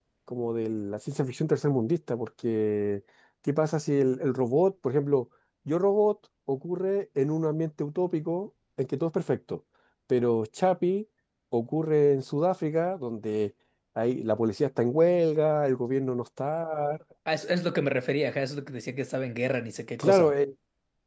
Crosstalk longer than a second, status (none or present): none